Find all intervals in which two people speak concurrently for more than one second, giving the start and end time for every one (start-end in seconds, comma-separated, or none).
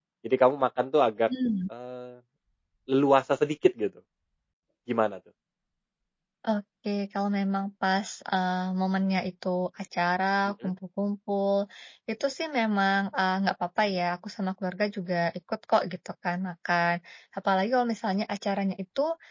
none